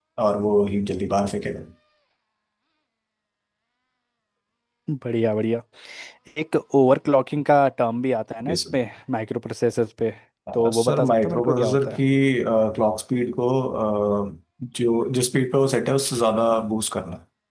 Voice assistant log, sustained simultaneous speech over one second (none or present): present